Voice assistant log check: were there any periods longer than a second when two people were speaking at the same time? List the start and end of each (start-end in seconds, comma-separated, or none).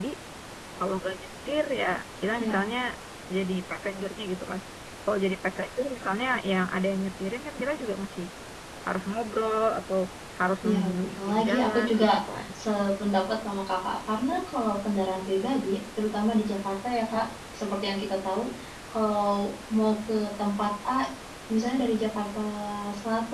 10.7-12.1